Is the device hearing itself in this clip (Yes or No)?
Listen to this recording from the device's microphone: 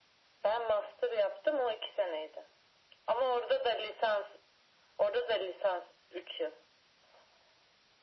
Yes